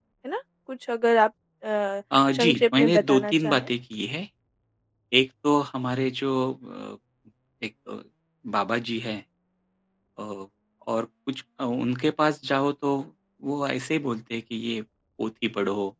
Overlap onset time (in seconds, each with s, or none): 2.1 s